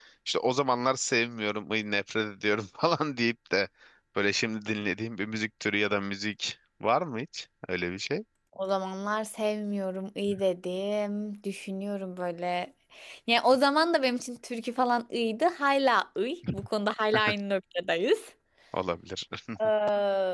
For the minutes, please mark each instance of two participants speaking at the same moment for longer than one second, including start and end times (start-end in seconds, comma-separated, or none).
none